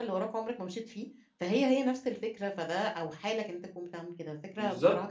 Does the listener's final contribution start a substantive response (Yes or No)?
Yes